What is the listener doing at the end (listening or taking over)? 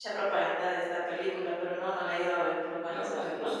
taking over